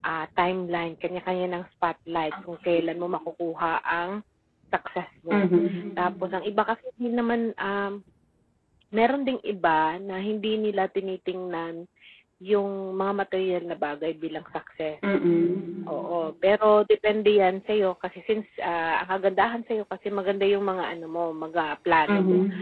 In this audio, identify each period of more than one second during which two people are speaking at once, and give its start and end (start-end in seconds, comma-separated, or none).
none